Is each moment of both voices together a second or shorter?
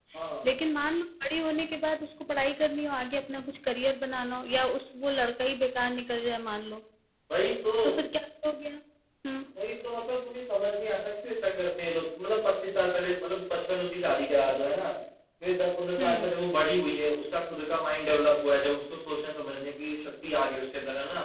Yes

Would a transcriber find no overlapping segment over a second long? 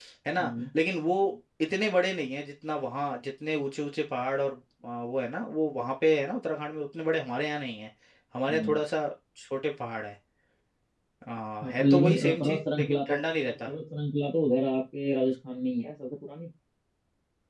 No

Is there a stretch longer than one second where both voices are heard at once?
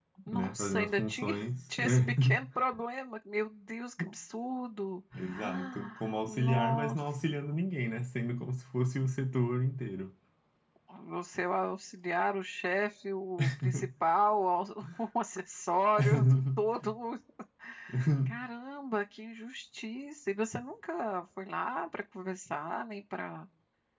Yes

